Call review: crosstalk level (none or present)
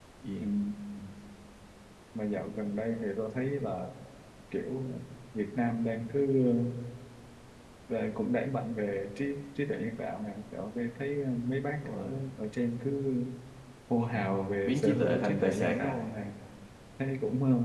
present